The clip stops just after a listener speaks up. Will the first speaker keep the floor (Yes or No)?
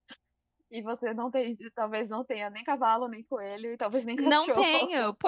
No